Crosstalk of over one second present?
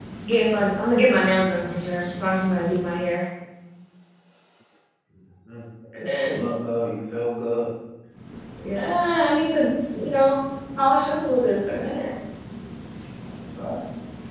No

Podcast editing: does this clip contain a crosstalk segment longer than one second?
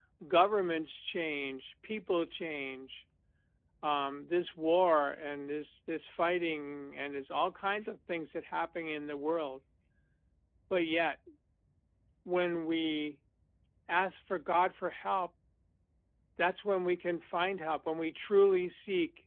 No

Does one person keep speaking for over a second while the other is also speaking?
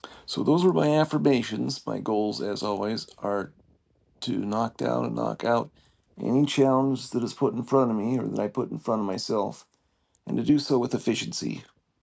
No

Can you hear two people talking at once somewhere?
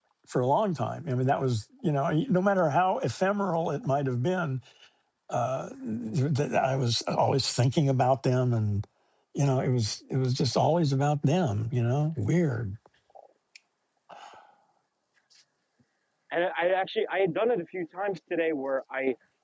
No

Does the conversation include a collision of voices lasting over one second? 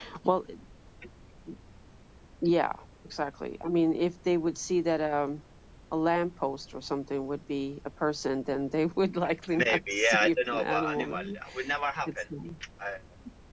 Yes, from 9.5 s

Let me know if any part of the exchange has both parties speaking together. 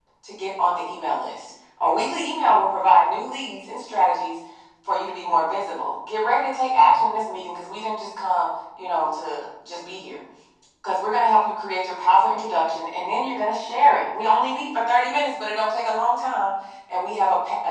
No

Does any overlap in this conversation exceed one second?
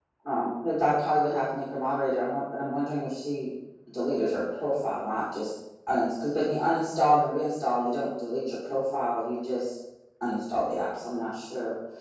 No

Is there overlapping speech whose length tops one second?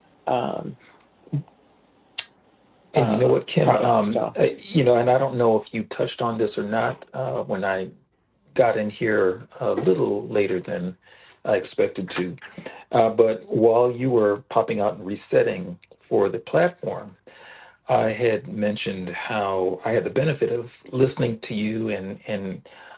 Yes, from 3.0 s

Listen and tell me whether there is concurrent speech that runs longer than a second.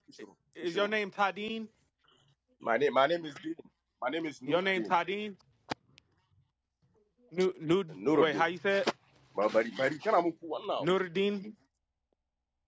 No

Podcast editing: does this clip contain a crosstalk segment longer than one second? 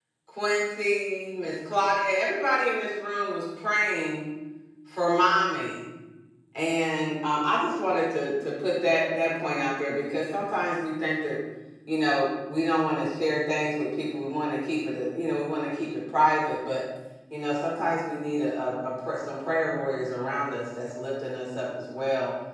No

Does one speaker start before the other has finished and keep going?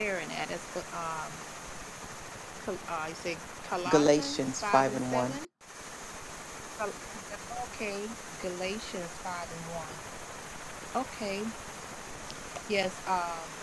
Yes, from 3.9 s

